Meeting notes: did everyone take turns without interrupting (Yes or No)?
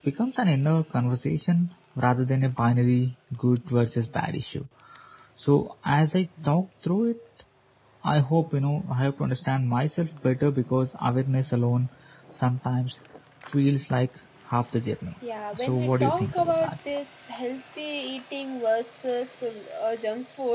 No